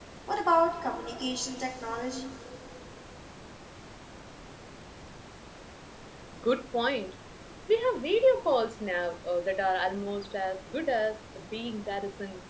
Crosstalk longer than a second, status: none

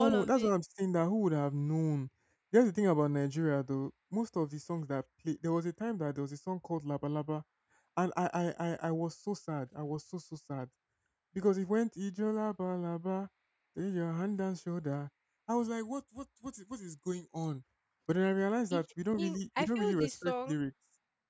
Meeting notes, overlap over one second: present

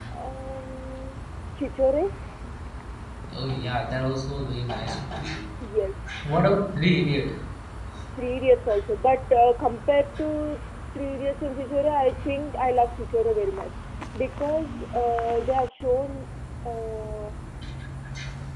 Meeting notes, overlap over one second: none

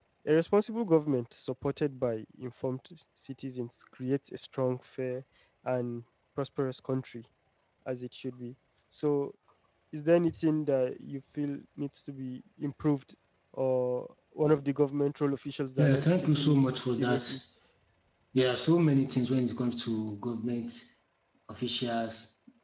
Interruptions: present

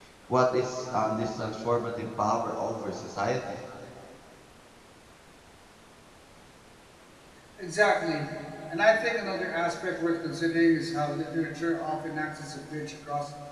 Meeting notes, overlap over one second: none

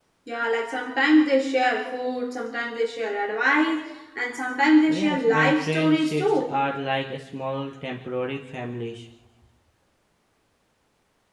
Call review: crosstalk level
present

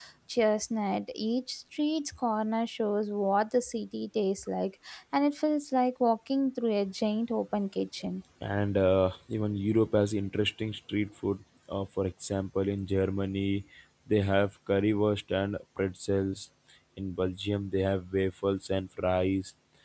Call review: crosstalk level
none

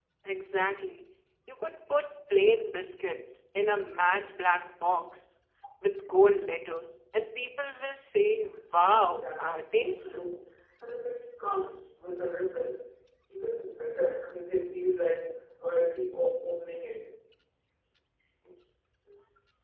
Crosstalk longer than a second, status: present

